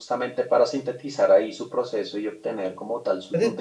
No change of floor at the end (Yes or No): No